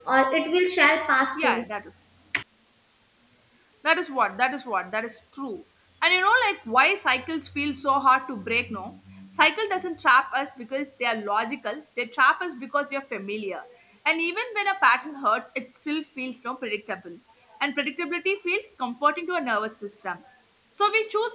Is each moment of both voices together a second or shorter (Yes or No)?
Yes